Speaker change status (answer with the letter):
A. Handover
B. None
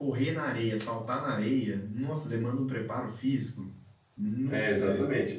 A